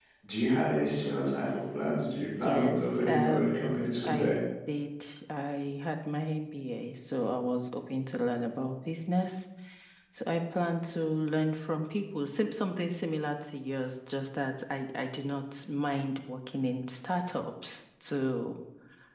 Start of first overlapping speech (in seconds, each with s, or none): 2.2 s